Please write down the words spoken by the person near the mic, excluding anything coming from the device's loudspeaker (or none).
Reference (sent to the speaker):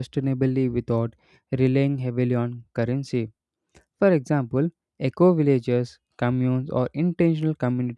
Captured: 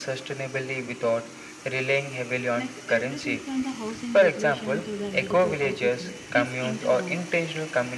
like everything from the housing regulation to the medical services, is intertwined